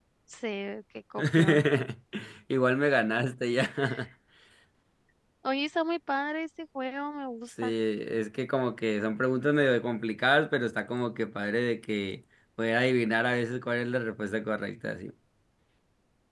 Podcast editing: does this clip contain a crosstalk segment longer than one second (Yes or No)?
No